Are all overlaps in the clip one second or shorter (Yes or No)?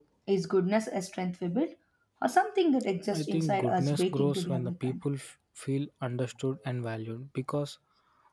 No